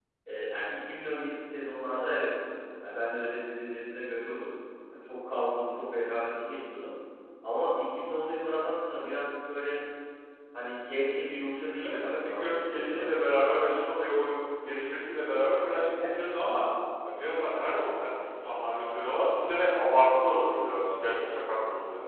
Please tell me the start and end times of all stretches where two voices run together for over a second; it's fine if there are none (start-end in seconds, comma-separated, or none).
11.8-13.1